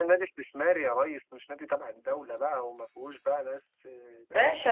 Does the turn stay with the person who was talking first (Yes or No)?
No